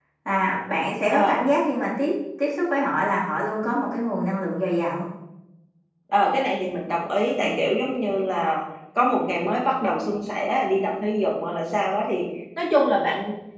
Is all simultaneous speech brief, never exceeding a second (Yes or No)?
Yes